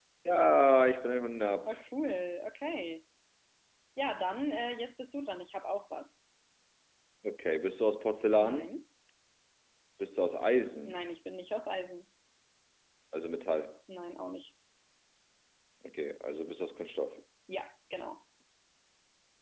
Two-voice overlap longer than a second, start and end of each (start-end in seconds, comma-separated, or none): none